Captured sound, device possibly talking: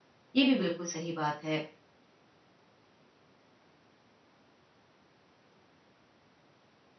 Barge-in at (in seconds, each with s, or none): 0.3 s